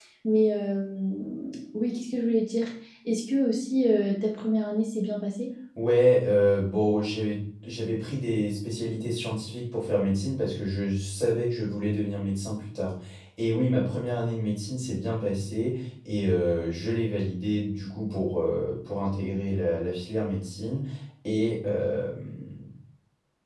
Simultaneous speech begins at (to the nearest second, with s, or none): none